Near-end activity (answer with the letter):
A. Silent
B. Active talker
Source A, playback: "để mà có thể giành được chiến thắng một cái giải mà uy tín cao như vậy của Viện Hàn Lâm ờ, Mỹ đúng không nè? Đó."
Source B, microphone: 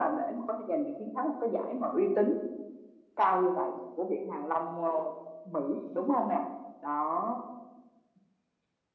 A